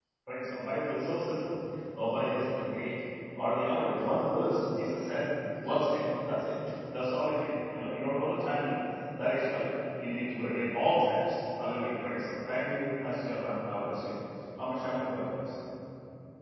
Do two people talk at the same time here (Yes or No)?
No